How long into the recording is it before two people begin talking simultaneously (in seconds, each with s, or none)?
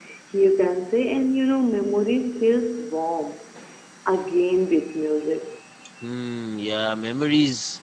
none